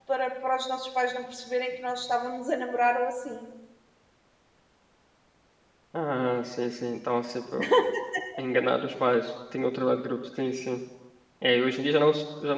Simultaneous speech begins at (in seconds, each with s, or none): none